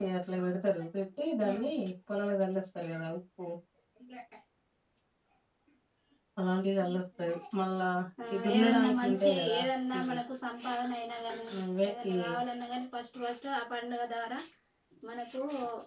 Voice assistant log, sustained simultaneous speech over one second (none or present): present